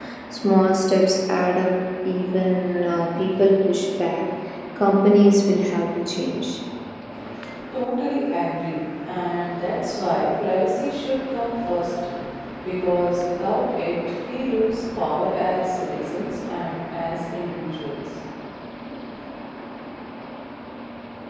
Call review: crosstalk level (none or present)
none